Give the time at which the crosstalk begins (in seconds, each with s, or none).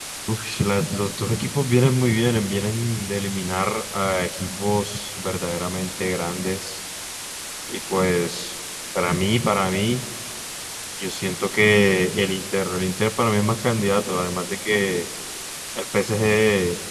none